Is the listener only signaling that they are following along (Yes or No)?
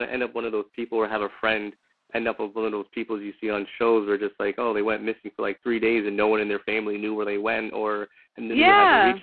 Yes